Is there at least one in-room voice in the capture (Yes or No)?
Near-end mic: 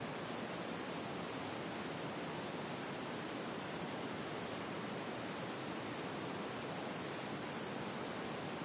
No